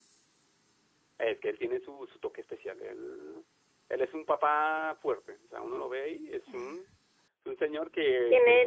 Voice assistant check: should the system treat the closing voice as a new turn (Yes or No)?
Yes